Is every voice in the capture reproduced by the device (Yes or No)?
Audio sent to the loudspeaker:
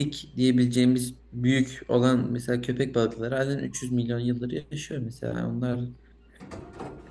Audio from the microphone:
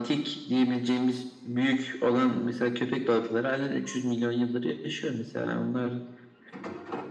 Yes